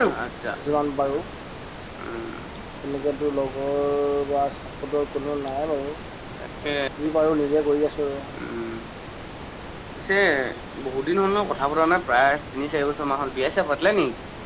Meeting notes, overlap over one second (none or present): none